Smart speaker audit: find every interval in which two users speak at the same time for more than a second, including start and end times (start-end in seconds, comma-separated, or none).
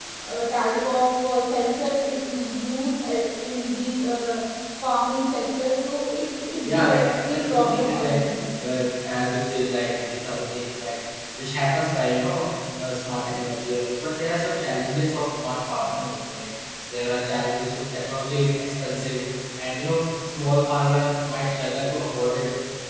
6.6-8.2